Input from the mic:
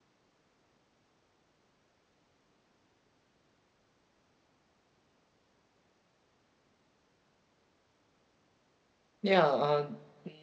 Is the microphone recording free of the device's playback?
Yes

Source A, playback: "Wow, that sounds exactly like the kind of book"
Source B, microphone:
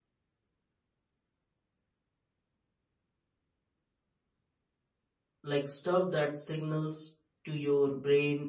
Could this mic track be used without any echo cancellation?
Yes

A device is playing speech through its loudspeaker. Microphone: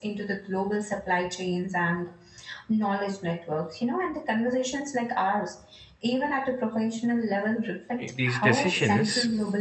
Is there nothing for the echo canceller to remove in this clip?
No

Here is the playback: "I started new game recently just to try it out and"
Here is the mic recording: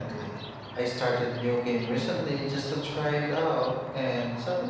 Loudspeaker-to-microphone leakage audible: Yes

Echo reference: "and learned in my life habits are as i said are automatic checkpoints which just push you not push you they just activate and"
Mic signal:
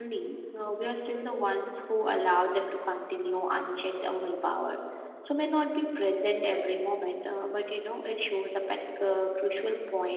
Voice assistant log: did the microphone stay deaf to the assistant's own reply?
Yes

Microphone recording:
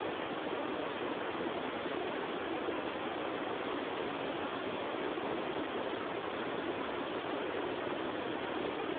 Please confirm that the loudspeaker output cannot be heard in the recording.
Yes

